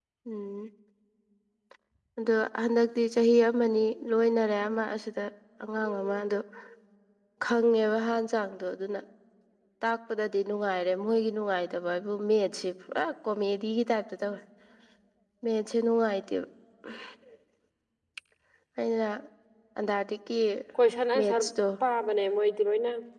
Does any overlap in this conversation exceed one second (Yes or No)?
No